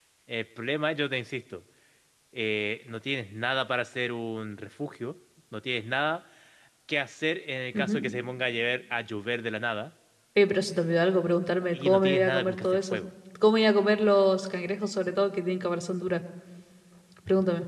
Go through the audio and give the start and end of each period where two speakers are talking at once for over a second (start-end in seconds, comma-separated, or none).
11.7-13.0